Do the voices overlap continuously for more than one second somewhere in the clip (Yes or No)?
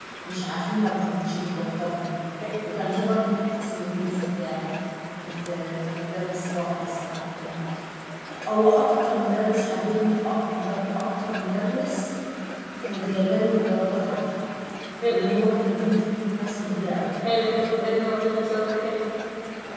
No